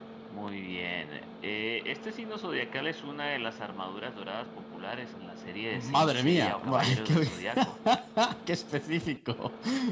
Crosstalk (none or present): present